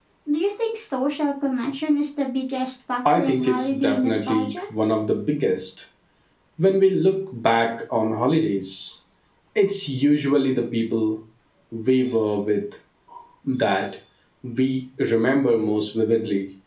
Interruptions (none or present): present